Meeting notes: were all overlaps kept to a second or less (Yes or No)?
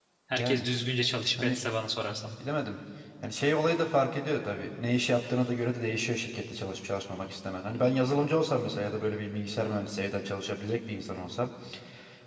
Yes